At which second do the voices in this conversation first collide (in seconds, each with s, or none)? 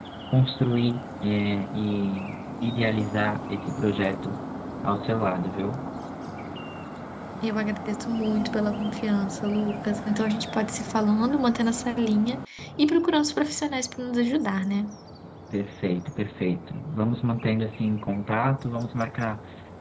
none